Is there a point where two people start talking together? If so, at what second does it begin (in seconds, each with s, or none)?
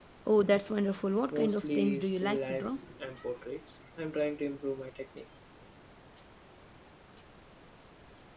1.3 s